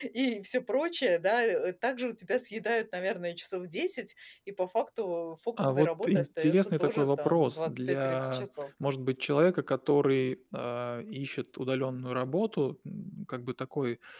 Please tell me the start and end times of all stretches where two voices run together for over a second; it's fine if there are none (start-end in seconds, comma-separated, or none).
5.6-8.5